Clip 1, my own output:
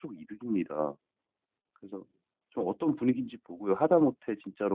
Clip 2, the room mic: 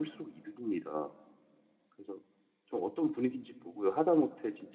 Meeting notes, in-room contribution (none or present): none